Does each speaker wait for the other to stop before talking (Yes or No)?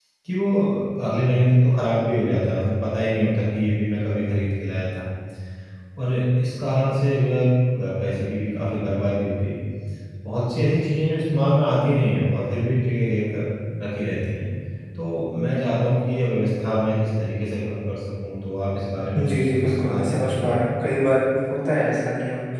No